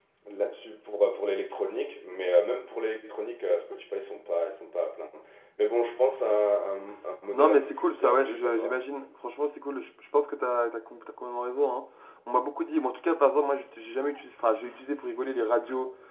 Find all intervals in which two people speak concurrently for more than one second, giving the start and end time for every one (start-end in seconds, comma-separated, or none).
7.3-8.8